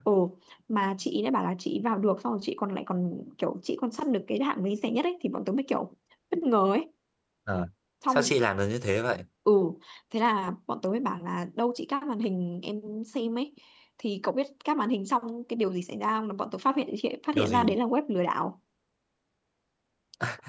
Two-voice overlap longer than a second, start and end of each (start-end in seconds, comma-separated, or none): none